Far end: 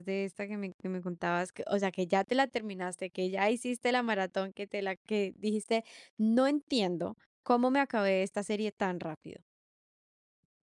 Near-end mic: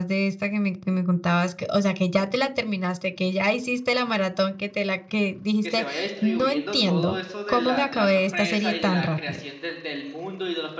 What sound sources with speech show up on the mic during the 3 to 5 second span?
echo only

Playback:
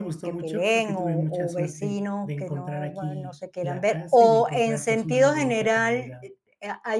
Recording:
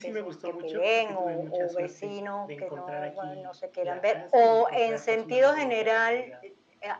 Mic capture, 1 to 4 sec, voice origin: echo only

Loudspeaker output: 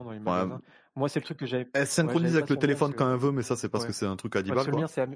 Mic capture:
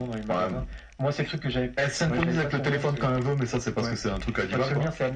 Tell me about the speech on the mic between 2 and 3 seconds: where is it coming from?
echo only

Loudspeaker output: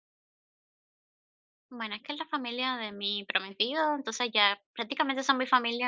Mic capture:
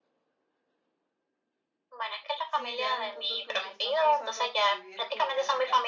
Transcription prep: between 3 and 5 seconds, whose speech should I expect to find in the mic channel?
both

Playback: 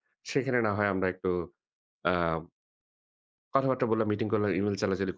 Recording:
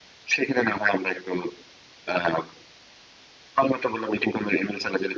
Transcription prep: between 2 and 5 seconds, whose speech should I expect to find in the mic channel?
echo only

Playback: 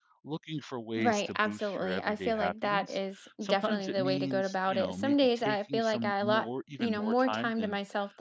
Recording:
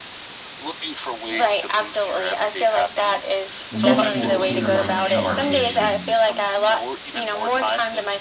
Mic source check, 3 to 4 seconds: both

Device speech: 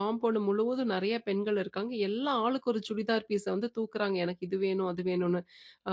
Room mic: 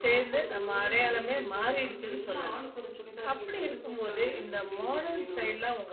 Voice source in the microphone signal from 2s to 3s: both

